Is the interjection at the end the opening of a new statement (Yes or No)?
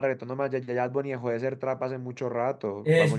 Yes